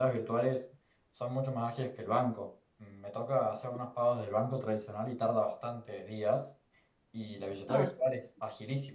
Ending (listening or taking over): listening